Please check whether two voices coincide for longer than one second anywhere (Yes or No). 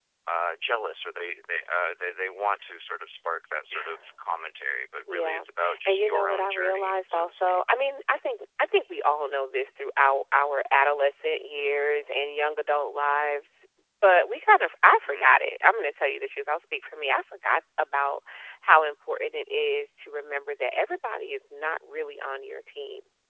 Yes